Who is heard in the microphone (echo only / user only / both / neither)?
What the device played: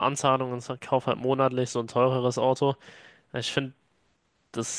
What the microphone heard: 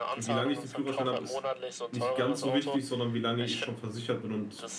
both